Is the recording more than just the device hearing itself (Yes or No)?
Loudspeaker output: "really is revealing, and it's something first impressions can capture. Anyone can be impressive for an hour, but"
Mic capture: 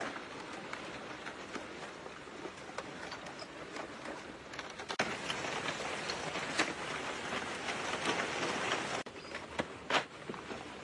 No